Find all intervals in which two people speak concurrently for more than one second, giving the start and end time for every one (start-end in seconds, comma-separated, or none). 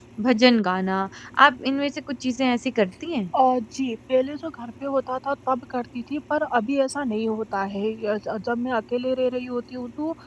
none